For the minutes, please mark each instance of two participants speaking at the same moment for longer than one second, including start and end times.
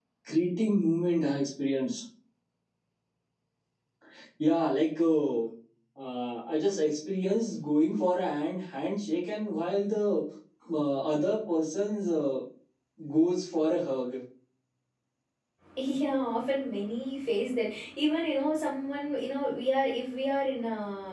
none

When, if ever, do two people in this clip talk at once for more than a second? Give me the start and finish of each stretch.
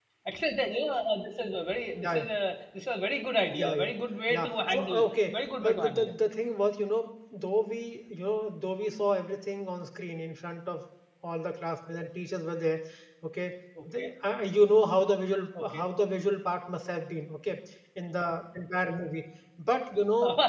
4.3-6.1

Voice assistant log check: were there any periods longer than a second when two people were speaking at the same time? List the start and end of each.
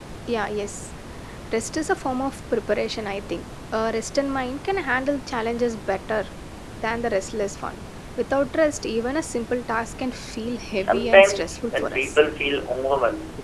10.8-12.2

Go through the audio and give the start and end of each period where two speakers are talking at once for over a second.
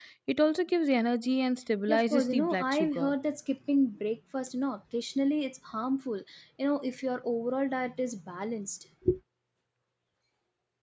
1.9-3.1

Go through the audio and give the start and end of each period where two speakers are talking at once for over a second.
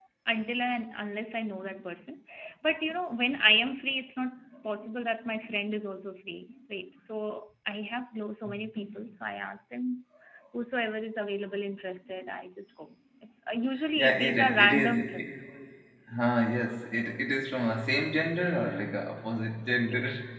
14.0-15.2

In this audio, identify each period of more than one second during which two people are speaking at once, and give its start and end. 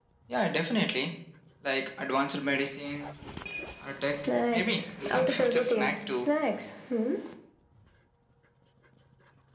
4.2-6.3

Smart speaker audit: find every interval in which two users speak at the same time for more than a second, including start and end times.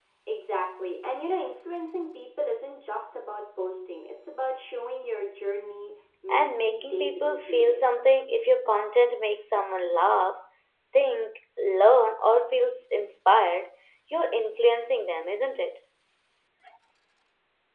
6.3-7.8

